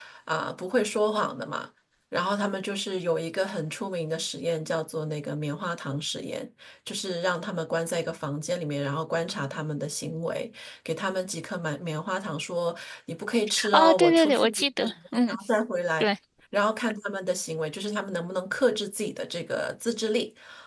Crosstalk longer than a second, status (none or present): present